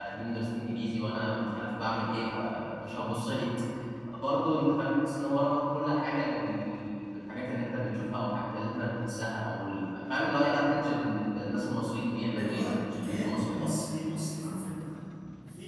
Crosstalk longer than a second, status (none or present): present